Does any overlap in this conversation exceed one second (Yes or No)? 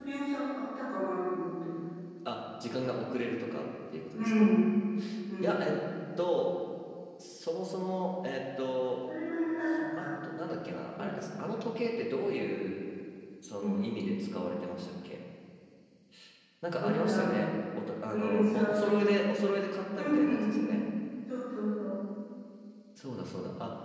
Yes